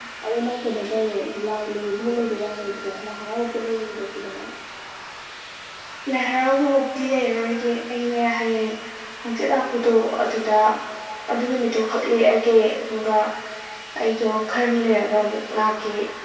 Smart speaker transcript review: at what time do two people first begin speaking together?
none

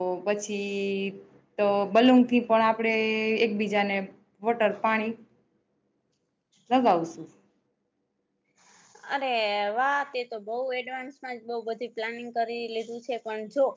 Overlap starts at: none

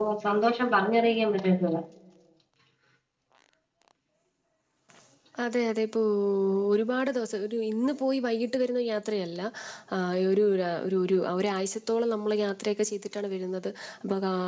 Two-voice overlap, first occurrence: none

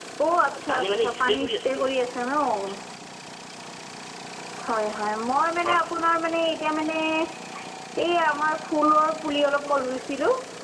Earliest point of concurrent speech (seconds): 0.7 s

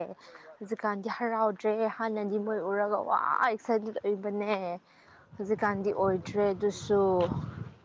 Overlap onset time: none

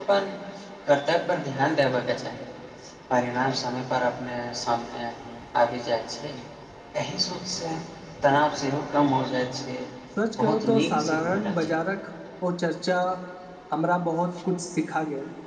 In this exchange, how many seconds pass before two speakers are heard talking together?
10.4 s

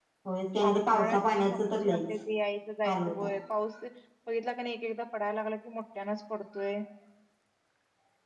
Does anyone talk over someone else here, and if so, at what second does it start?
0.6 s

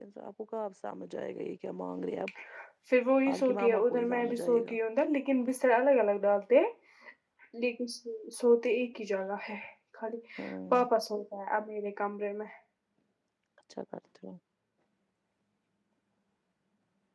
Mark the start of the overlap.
3.3 s

